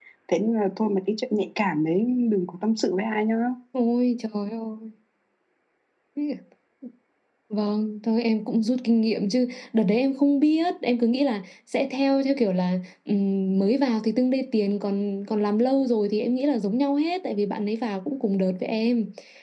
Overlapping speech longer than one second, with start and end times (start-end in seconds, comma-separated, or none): none